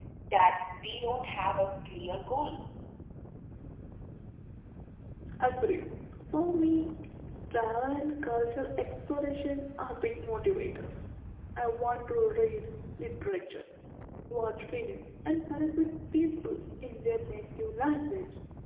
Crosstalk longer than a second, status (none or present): none